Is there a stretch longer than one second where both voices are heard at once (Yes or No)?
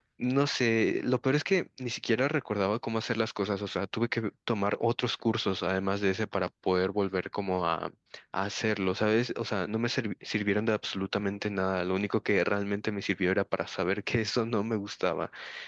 No